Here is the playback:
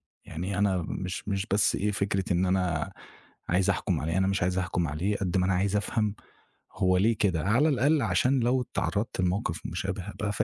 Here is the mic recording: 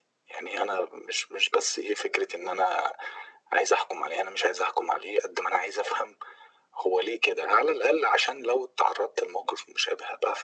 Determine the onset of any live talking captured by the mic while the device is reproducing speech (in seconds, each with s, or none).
none